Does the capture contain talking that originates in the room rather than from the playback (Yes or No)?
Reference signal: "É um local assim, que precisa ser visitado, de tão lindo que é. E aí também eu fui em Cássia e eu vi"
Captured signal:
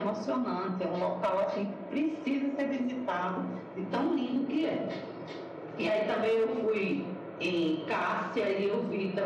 No